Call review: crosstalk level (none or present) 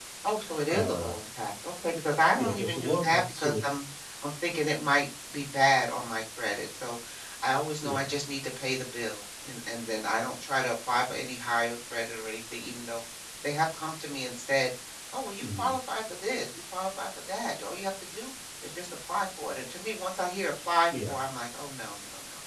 present